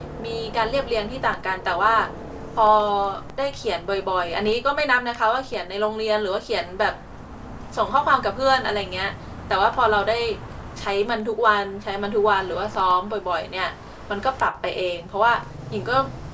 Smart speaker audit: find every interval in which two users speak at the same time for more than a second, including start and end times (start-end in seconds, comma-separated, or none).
none